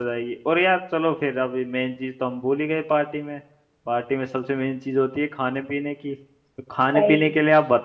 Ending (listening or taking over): listening